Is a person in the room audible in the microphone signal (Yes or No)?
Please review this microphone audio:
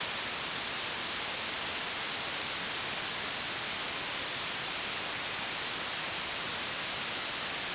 No